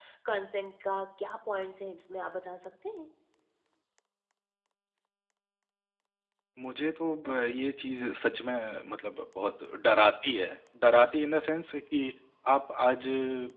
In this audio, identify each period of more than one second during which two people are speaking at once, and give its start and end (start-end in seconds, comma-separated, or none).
none